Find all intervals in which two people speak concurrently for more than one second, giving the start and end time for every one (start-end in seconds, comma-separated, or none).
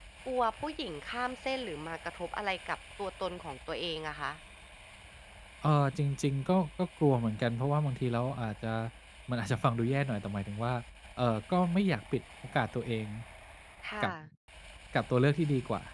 none